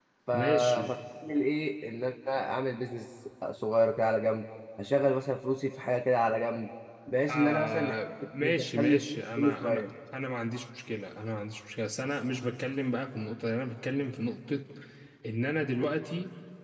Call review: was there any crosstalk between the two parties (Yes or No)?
Yes